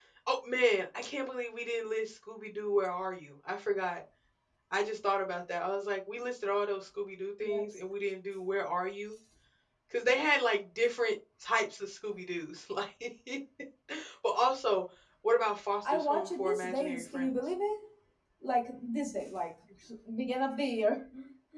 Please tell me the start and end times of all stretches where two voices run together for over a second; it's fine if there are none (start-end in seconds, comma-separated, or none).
15.8-17.3